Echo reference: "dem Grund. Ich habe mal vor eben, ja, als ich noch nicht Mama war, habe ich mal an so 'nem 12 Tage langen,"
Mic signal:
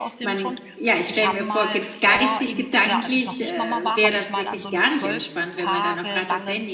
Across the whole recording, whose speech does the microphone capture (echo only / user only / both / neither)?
both